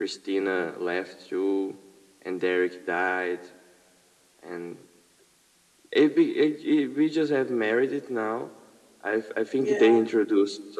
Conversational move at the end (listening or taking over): listening